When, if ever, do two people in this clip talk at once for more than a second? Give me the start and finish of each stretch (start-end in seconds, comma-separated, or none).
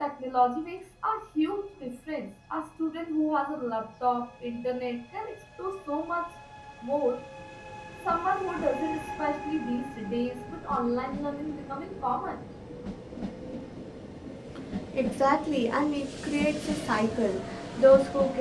none